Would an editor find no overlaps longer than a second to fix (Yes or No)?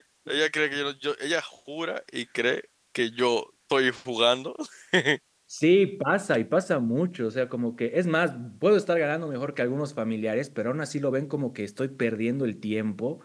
Yes